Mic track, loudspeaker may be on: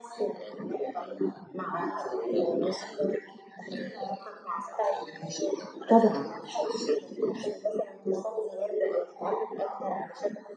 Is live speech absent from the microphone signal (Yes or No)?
No